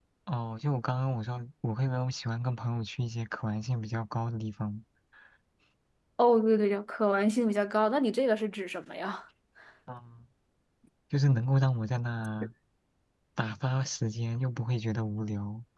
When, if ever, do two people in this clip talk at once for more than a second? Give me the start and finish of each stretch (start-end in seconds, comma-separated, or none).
none